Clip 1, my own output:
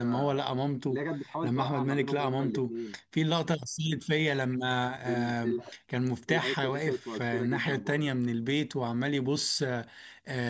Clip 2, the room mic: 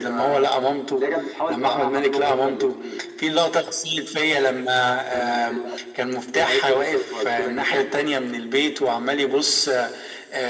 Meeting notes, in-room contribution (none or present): none